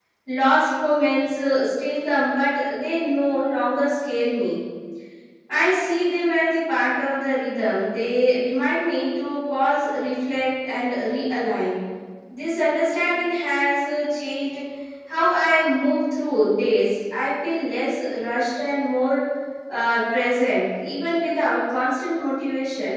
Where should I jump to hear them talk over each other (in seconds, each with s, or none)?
none